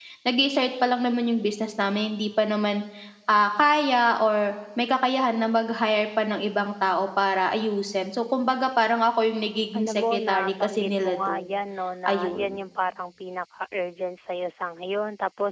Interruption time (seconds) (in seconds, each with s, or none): 9.8 s